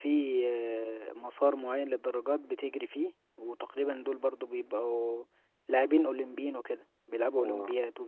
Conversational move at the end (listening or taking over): taking over